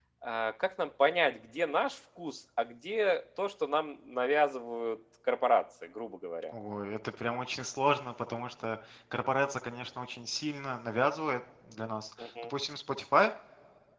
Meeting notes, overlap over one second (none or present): none